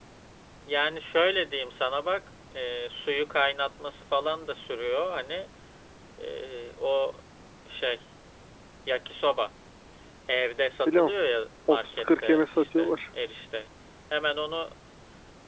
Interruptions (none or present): present